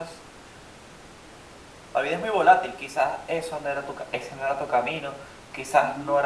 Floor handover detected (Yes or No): No